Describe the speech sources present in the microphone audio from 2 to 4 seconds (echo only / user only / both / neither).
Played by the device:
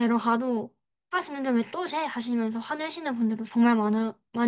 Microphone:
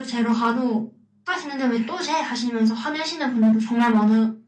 echo only